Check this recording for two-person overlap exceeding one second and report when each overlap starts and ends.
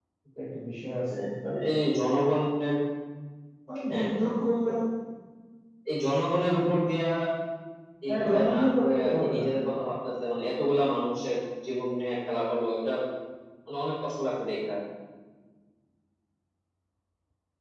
8.1-9.4

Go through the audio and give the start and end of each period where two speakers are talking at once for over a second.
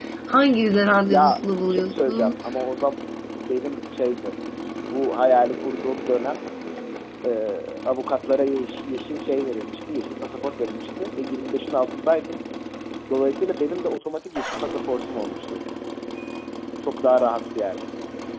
1.1-2.3

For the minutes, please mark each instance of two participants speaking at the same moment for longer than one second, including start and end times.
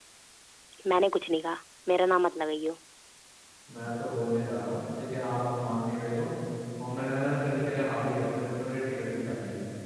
none

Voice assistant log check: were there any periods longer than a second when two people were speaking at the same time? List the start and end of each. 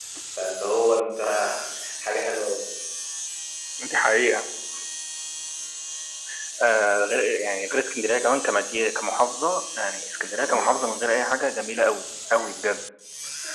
none

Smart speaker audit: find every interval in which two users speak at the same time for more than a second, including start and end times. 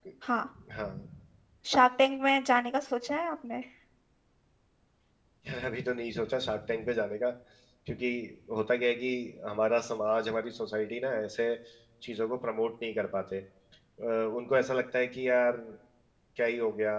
none

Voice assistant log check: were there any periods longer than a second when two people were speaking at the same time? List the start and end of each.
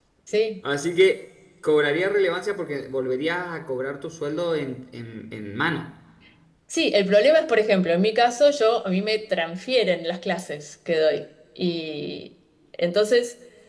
none

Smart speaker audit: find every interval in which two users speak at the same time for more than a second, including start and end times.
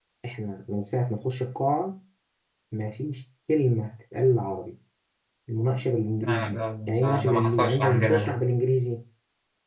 6.2-8.4

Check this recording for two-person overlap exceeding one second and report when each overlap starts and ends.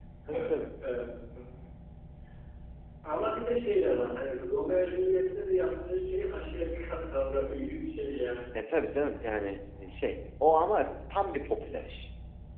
none

